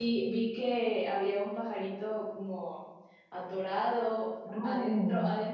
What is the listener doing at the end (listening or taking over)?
listening